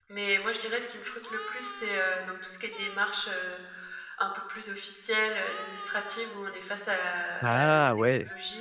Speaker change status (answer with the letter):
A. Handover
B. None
B